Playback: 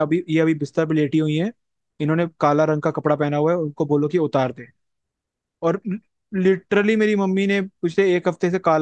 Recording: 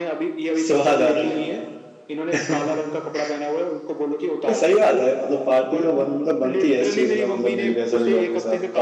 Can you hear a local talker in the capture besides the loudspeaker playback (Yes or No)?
Yes